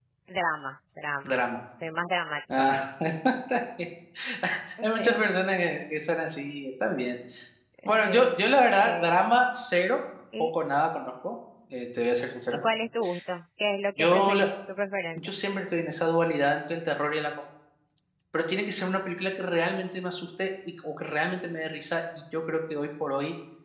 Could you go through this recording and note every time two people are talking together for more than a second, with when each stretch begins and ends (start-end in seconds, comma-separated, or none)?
none